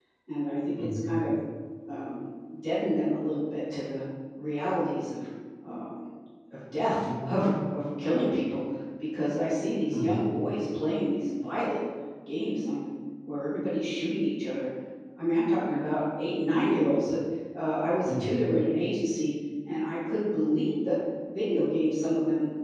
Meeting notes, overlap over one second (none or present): none